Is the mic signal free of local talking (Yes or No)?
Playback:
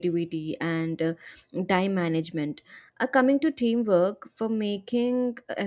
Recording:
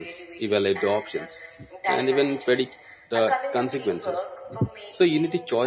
No